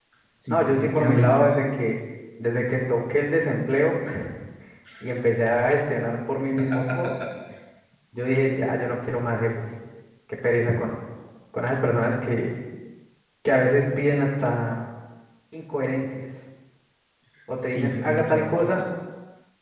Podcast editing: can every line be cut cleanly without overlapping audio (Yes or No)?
No